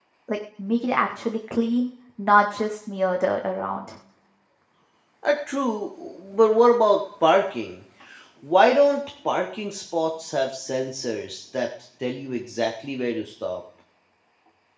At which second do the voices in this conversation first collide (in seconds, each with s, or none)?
none